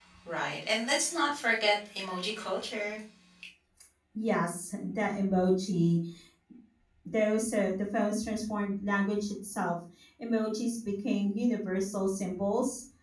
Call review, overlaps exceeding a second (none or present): none